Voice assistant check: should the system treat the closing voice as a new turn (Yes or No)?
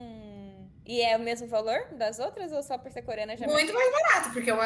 Yes